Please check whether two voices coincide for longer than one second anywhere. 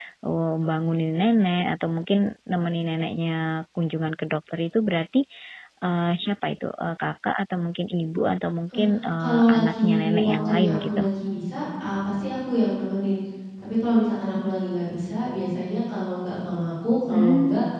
Yes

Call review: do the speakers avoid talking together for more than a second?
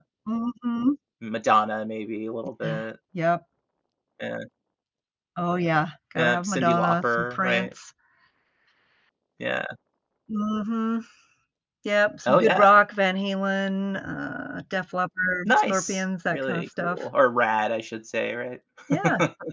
No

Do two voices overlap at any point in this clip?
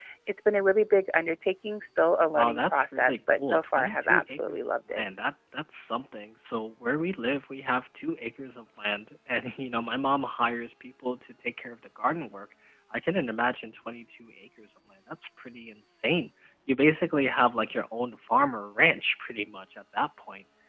Yes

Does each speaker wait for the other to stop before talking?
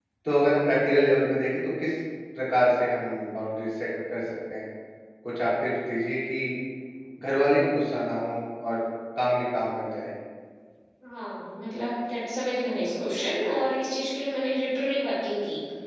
Yes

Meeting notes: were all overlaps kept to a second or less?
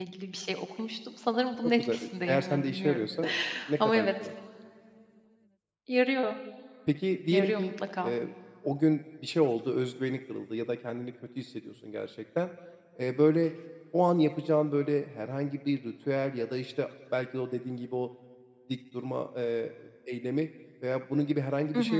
No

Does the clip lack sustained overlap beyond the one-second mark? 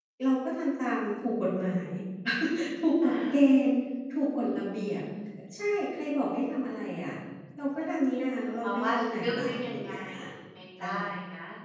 No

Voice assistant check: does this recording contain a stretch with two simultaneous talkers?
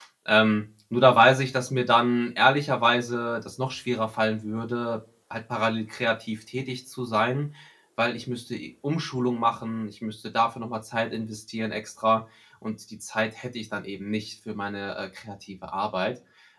No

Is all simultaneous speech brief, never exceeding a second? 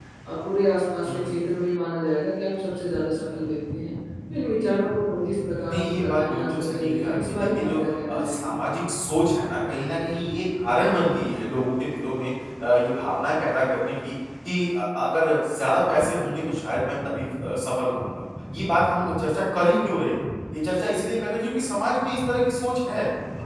No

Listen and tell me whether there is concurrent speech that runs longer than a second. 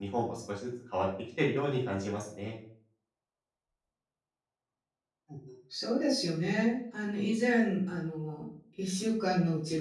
No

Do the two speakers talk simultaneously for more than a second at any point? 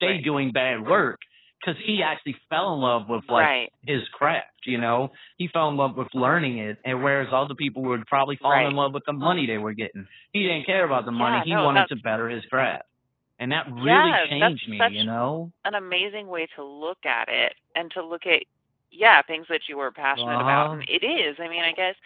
Yes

